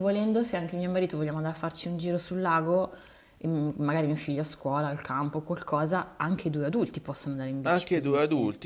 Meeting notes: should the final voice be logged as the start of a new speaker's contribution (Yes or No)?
Yes